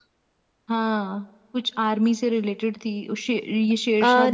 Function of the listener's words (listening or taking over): taking over